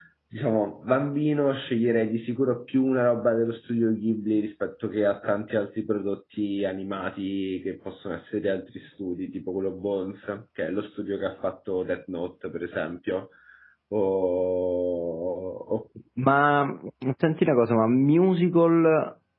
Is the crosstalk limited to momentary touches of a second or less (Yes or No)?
Yes